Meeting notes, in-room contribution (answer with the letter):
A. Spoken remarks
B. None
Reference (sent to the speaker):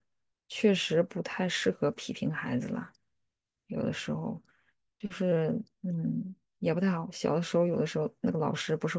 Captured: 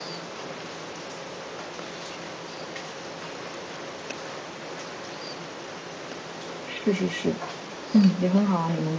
A